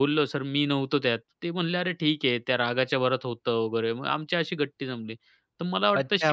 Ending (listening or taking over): taking over